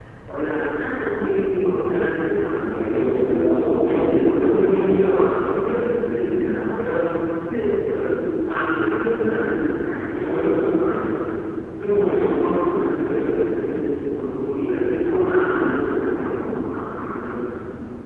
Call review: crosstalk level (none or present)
present